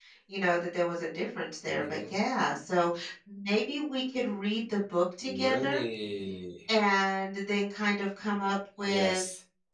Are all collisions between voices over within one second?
Yes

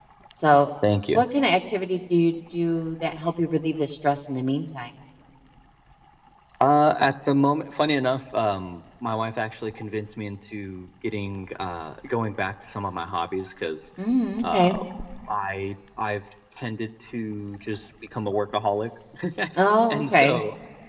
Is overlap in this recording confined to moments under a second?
Yes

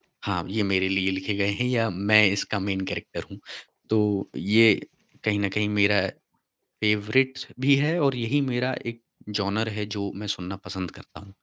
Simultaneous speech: No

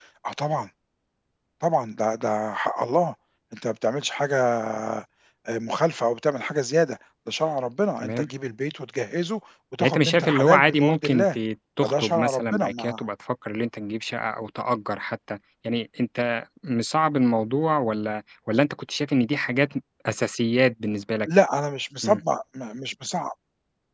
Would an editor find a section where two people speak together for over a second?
Yes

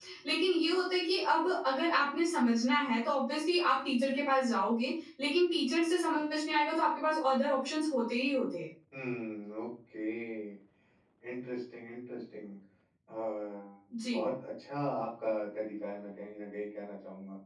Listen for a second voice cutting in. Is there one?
No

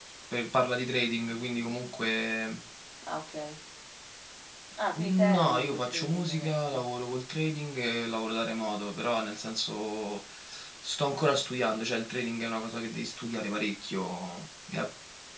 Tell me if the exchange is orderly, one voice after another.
No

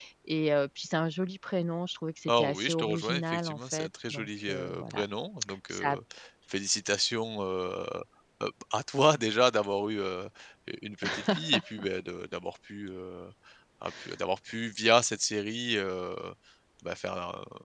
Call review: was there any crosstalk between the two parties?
Yes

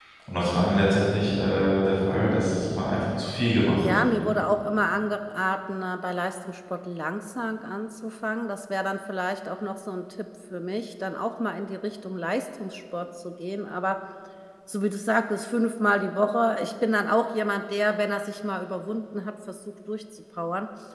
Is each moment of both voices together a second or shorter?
Yes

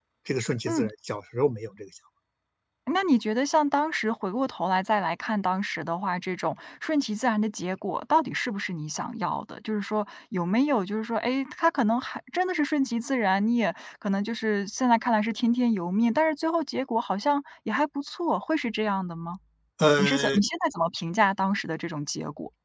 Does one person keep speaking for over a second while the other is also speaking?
No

